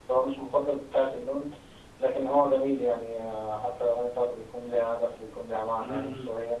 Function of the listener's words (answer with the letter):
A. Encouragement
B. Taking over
B